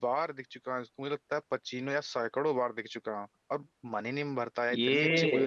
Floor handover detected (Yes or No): Yes